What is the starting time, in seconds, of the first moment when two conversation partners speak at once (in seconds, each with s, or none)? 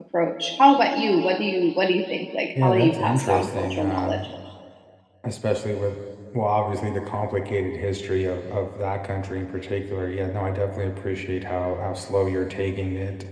2.5 s